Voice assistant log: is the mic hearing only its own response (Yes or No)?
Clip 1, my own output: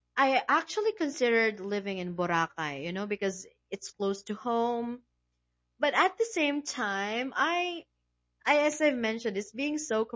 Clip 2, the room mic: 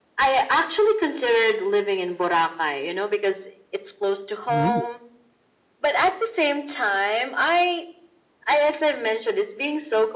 No